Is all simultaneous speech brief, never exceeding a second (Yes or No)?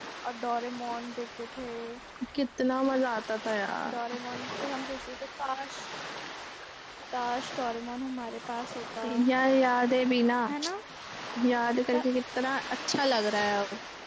Yes